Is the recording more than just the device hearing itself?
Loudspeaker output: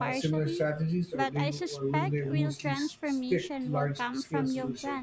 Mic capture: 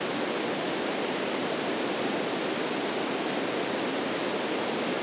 No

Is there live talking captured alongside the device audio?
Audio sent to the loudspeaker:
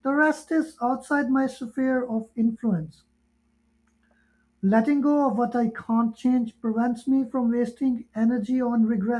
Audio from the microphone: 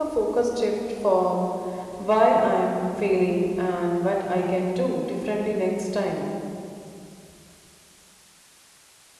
Yes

